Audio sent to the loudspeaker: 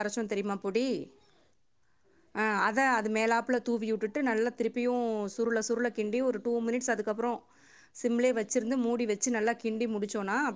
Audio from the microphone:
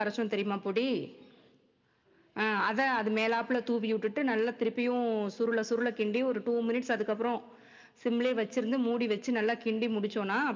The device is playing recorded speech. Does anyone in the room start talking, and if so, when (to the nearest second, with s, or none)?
none